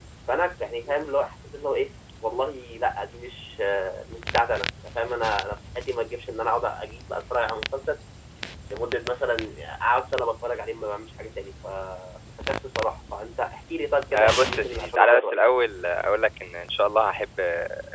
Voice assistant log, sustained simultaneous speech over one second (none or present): present